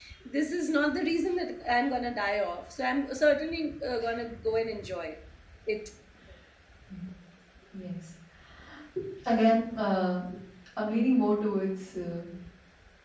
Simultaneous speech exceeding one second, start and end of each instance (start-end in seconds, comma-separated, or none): none